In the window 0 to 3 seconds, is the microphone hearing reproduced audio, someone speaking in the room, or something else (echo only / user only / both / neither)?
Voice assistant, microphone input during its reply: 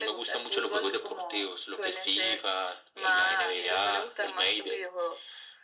echo only